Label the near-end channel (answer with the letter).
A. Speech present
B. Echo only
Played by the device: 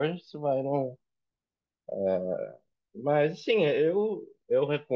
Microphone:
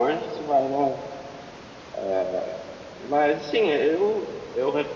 B